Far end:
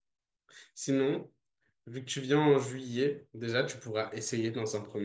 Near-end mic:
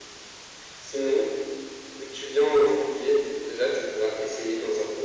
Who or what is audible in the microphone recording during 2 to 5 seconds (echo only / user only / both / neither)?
echo only